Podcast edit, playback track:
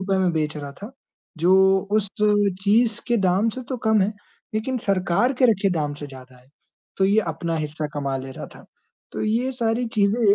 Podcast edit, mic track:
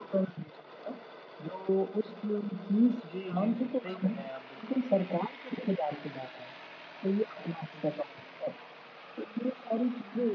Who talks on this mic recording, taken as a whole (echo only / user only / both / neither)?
both